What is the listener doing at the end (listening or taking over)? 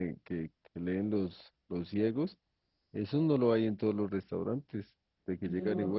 listening